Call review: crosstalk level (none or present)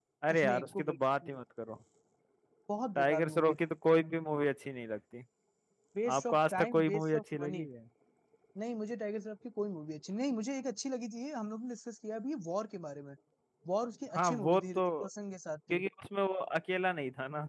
present